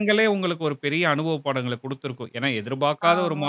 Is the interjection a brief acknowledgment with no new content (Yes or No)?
Yes